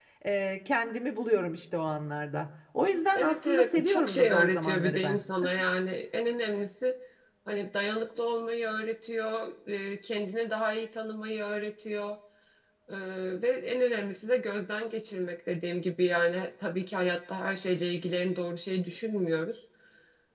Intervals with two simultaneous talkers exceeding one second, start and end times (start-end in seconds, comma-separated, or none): 3.1-5.2